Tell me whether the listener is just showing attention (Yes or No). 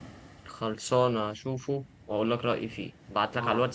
Yes